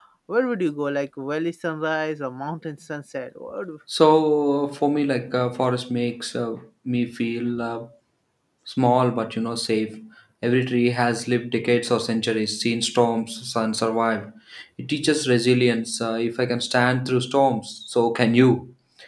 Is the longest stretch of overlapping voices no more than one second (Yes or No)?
Yes